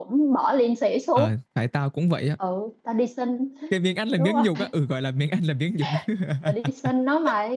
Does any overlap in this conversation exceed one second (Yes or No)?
No